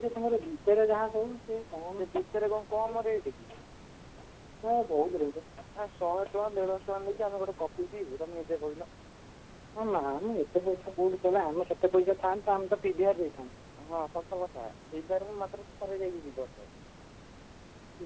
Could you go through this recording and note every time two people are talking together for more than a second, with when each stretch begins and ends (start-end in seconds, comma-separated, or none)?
none